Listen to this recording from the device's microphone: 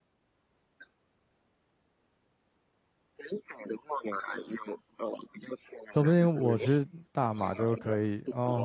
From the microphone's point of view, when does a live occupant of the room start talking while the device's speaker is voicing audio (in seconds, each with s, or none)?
5.9 s